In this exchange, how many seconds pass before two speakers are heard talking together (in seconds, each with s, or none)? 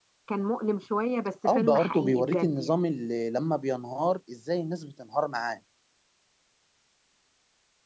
1.4 s